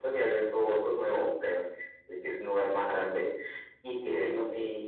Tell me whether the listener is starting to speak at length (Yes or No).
No